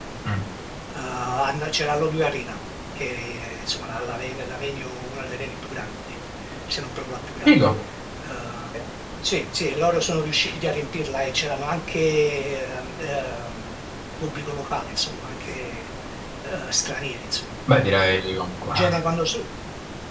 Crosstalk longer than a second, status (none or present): none